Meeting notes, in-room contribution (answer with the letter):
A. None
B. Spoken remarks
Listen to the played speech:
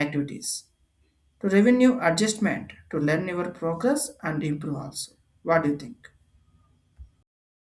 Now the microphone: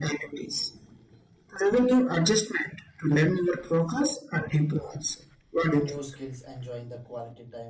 B